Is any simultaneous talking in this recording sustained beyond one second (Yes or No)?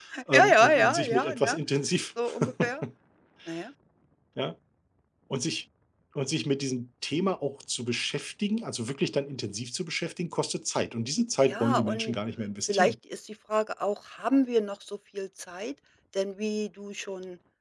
Yes